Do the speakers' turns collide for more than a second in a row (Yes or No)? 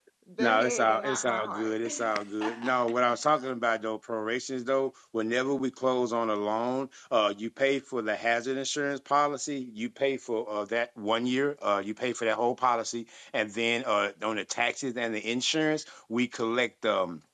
Yes